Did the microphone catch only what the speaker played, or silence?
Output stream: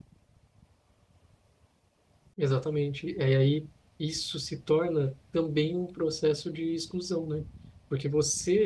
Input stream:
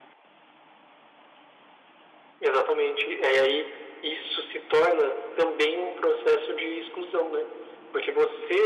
Yes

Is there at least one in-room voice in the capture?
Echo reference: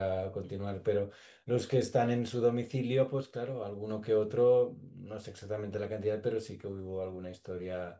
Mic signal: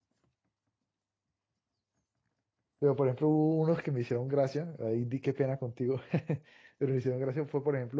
Yes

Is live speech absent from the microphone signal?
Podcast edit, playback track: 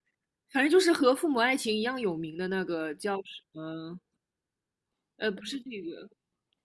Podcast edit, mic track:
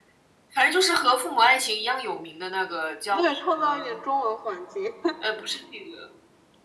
No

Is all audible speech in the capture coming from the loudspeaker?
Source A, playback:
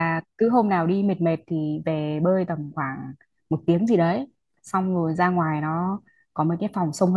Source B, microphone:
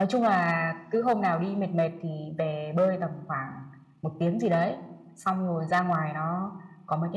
Yes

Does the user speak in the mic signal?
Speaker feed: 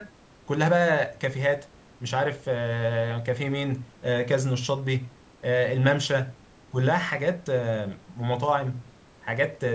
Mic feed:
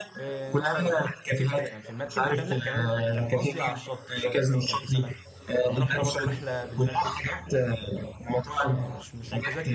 Yes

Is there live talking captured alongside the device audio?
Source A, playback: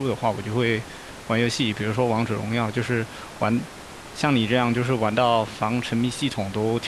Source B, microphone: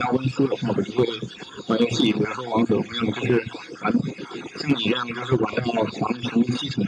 No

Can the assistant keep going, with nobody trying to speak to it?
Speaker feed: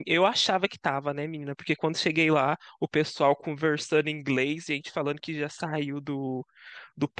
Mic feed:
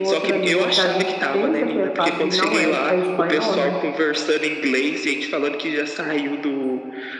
No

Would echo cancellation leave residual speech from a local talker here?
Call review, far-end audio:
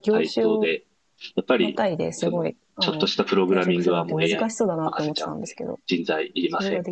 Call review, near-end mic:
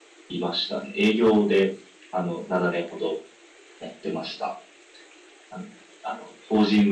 Yes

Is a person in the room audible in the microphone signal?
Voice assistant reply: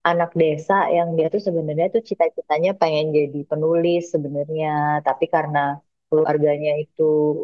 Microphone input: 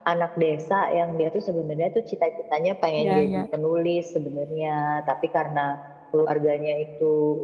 Yes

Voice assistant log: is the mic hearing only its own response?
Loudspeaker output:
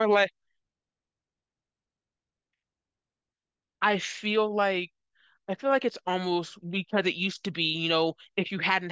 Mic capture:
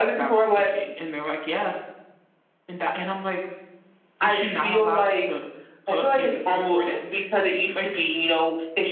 No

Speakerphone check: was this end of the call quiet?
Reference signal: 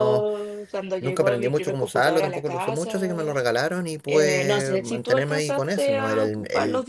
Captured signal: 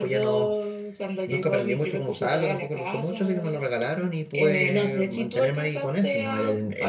Yes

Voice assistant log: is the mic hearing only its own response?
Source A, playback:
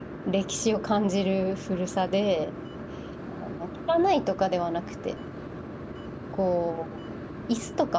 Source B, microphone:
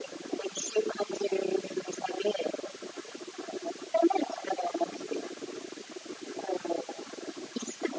Yes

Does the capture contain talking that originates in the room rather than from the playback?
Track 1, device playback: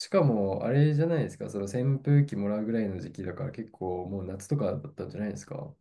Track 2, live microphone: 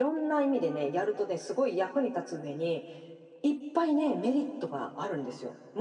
Yes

